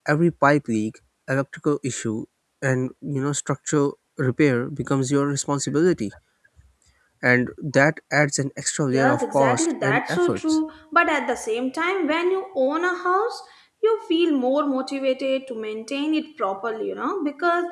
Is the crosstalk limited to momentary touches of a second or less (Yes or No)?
No